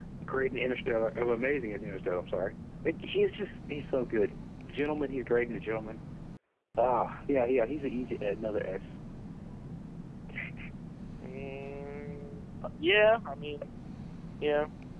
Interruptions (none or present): none